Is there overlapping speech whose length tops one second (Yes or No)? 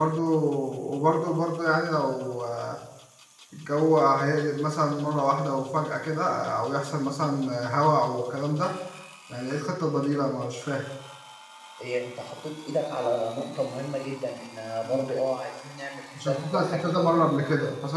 Yes